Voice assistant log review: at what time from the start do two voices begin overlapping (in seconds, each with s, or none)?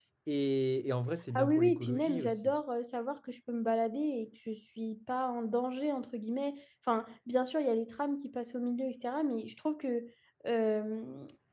1.4 s